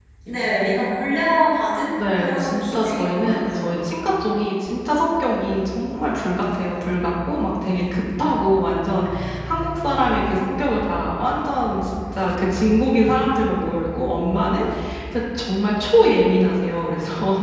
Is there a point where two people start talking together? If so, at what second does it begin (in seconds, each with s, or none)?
2.0 s